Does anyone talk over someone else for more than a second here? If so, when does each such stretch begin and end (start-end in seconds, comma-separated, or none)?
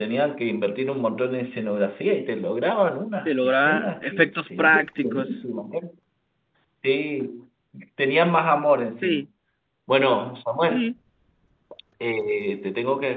3.2-5.3